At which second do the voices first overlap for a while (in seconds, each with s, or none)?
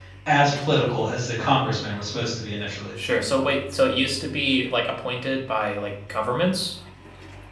none